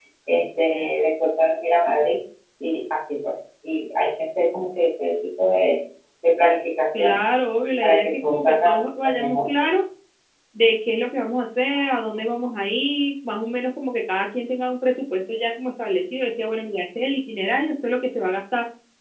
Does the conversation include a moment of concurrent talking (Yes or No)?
Yes